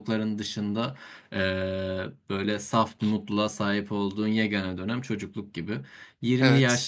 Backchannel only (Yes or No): Yes